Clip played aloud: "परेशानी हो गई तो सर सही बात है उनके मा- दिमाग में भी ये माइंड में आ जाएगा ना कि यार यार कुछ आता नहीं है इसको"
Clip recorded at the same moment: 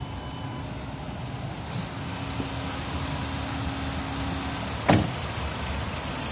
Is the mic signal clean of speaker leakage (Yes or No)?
Yes